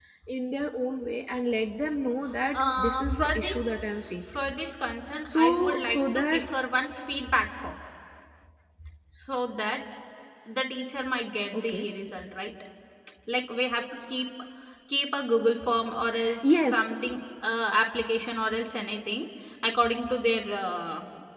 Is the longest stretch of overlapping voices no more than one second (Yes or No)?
No